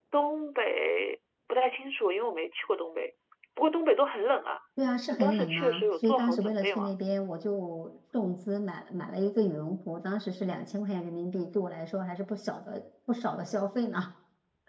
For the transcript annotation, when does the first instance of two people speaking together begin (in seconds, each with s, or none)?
5.1 s